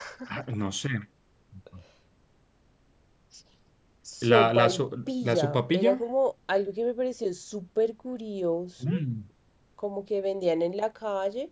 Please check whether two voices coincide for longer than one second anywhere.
Yes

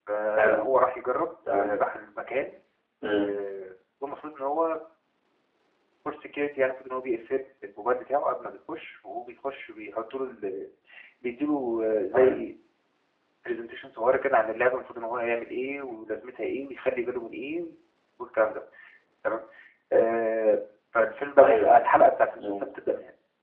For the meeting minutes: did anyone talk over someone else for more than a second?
No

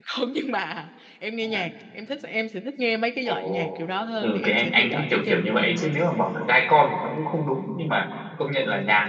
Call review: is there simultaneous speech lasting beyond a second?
Yes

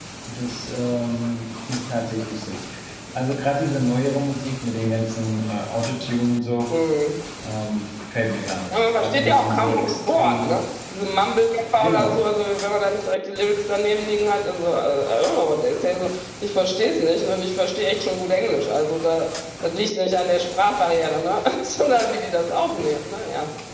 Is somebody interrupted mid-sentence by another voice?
Yes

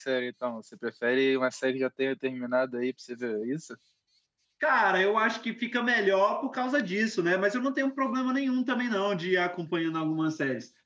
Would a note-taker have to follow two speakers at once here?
No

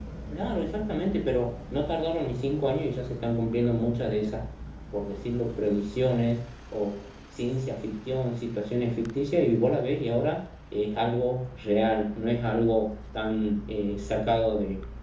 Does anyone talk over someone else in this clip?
No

